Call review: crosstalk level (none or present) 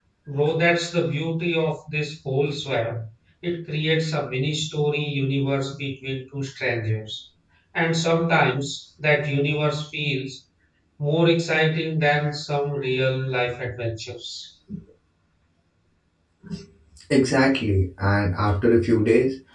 none